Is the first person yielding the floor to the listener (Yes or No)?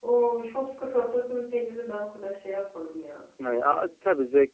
Yes